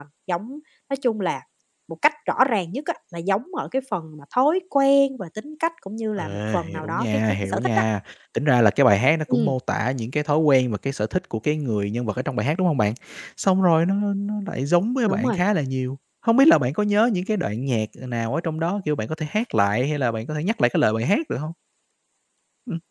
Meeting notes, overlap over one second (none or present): present